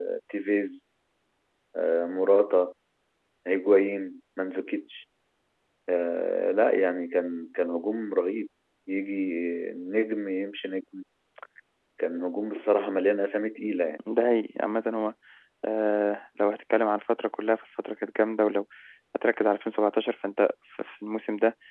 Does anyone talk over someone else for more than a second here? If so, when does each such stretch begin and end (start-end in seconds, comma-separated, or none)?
none